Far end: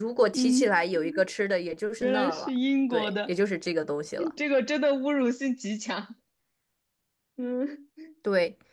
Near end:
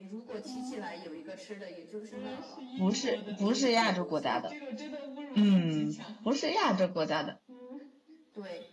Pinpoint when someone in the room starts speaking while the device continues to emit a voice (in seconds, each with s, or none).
2.8 s